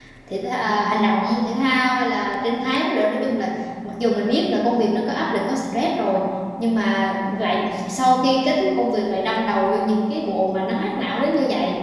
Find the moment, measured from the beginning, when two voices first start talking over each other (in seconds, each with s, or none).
none